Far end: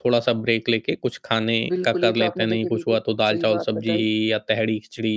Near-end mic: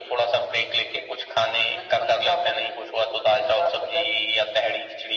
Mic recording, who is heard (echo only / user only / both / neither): echo only